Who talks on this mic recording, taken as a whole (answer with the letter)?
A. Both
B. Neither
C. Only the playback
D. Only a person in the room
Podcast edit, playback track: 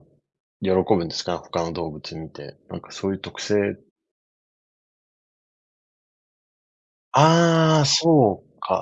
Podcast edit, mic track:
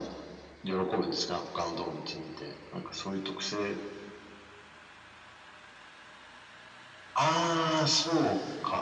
C